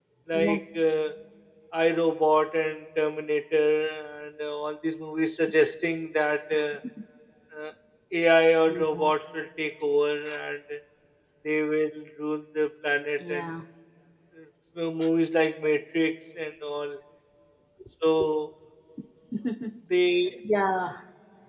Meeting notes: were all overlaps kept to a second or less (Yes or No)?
Yes